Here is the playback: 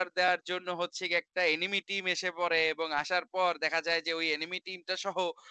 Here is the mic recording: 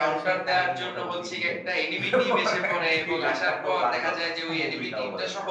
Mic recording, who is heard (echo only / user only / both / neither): both